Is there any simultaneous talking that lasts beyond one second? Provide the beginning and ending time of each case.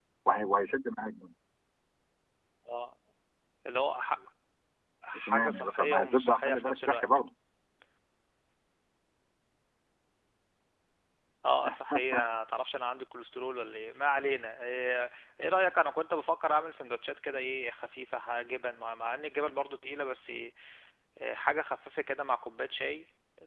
5.2-7.2

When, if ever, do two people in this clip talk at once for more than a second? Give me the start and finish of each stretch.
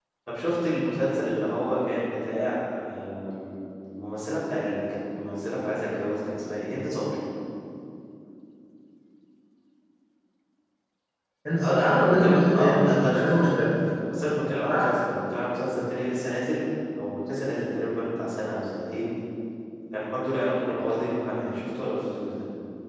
11.6-13.7

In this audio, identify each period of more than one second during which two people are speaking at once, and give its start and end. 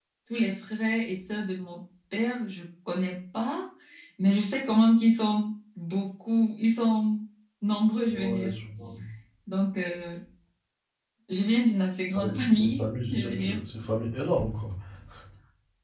12.1-13.6

